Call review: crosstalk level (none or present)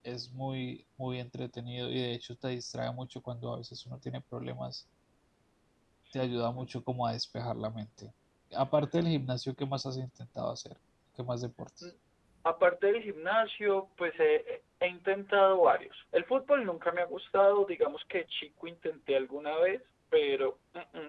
none